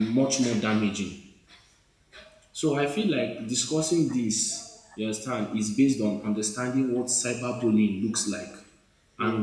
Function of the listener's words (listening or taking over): listening